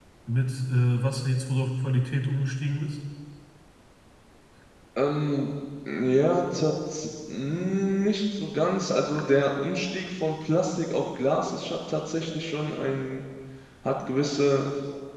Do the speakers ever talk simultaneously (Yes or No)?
No